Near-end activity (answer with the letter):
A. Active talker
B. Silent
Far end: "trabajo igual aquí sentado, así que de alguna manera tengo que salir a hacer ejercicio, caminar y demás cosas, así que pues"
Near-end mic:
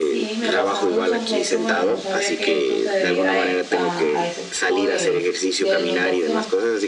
A